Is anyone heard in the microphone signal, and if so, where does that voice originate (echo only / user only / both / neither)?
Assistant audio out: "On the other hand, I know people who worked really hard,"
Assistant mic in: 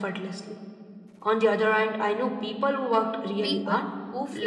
both